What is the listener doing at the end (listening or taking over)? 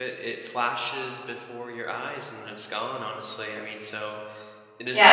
taking over